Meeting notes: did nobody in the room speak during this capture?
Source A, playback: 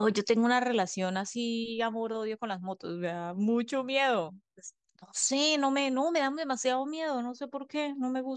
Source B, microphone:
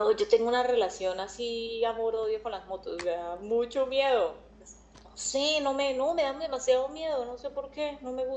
Yes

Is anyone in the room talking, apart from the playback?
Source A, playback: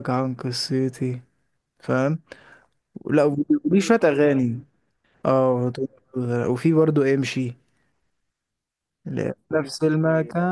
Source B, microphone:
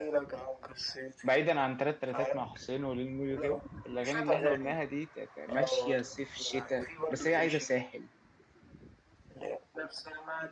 Yes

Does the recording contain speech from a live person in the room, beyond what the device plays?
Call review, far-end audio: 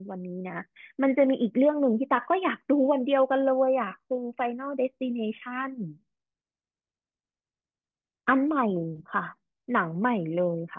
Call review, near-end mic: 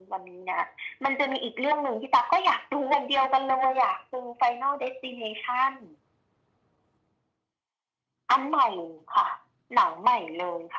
No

